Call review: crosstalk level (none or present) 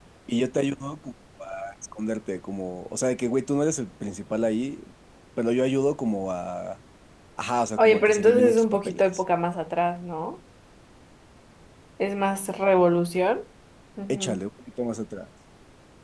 present